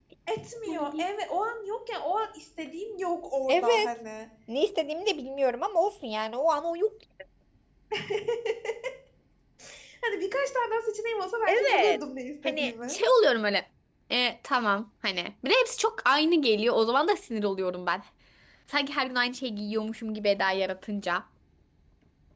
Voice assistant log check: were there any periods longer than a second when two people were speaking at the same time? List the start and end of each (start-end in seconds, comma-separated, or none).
none